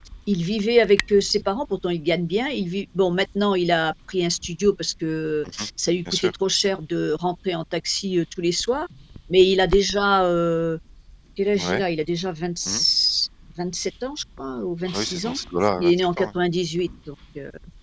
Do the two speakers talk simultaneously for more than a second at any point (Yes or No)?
No